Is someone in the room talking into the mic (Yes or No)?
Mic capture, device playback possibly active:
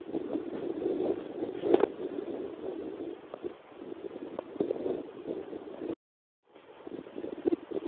No